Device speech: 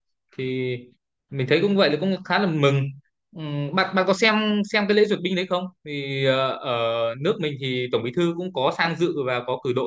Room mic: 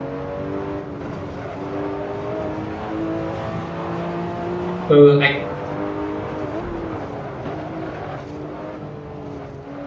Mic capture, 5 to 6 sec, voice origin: user only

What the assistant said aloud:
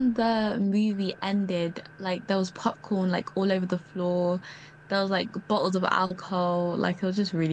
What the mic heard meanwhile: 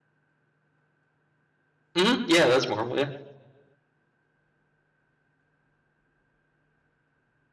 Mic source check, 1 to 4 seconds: user only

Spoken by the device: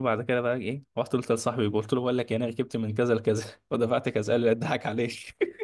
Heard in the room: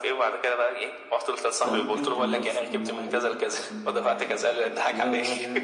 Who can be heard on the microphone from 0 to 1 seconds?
echo only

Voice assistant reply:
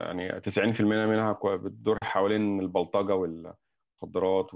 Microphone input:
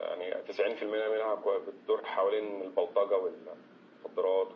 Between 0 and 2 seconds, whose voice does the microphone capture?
echo only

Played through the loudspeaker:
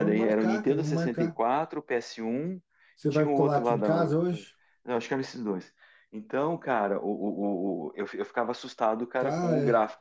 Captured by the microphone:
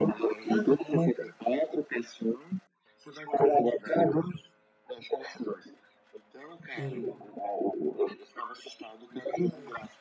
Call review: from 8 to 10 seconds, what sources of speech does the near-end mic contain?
echo only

